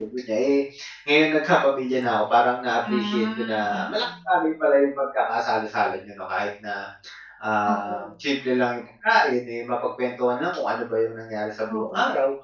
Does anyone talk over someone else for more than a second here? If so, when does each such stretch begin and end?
2.8-4.0

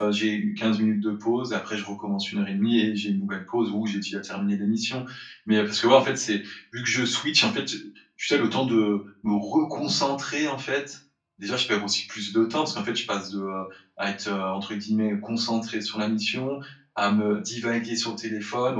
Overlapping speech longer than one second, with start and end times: none

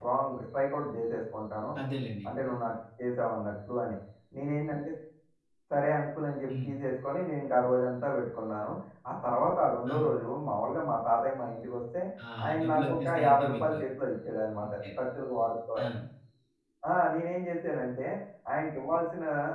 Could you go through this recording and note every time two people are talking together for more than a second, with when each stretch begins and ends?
12.4-13.8

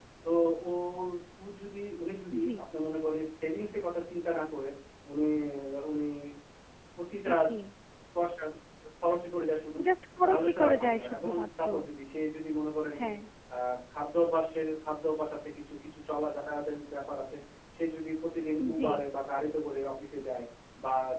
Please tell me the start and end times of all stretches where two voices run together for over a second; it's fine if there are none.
10.2-11.6

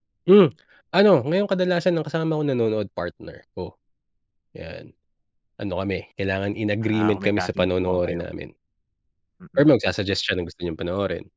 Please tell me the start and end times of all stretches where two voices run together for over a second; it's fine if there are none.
6.8-8.2

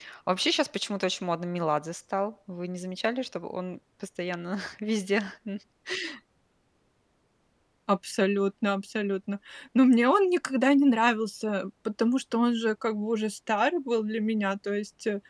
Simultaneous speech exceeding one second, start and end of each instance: none

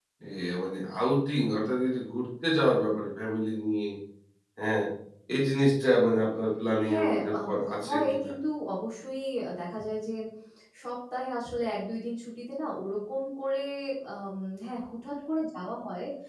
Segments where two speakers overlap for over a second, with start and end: 6.8-8.3

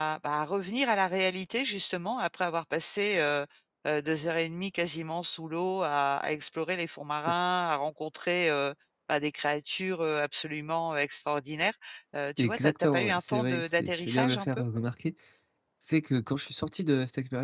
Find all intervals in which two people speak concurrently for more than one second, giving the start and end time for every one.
12.4-14.6

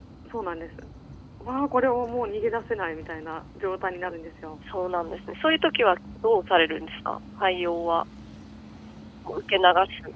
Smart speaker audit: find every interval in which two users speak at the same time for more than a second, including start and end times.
none

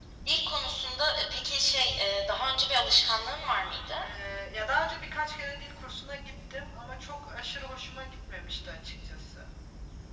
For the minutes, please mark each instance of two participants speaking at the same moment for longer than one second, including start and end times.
none

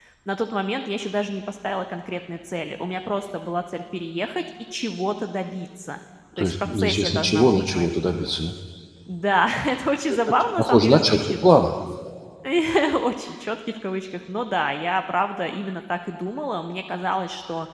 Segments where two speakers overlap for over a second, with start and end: 6.4-7.9, 10.1-11.4

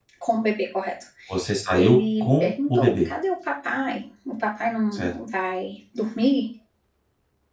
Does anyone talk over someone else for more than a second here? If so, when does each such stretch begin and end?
1.7-3.1

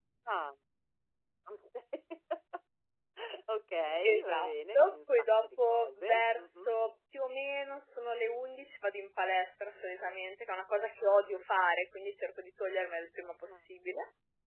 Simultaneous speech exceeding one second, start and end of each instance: 4.0-6.7

